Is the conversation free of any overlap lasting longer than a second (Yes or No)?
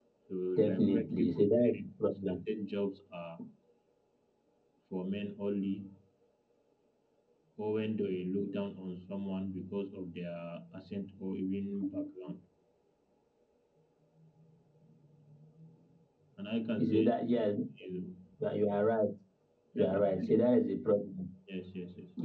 No